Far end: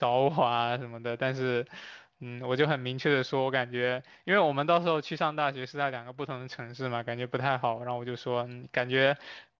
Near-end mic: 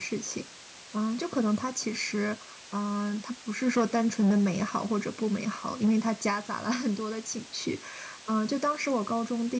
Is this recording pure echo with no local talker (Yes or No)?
No